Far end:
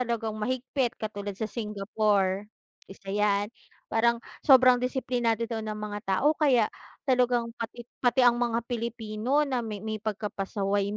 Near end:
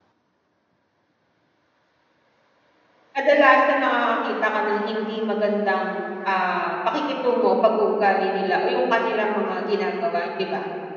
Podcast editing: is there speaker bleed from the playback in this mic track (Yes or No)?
No